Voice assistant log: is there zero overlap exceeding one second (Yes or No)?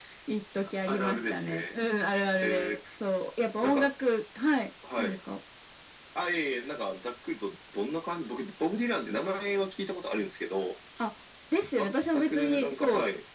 No